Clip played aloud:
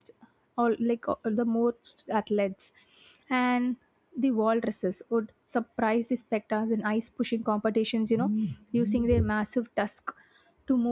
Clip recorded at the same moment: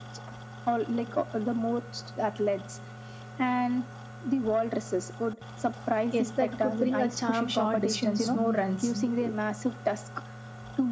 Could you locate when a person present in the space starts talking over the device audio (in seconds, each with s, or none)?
6.1 s